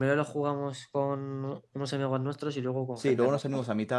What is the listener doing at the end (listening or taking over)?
taking over